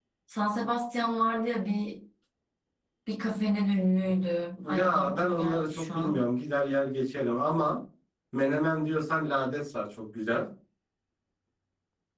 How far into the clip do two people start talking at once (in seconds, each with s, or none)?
4.6 s